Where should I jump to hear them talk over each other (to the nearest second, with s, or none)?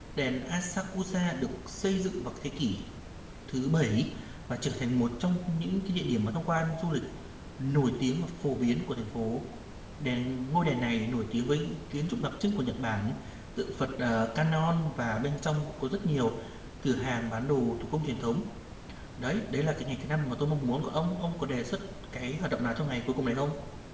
none